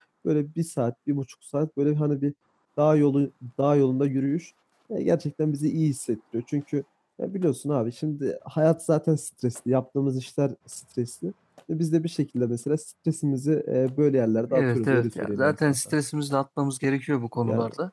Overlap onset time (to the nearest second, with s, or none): 15 s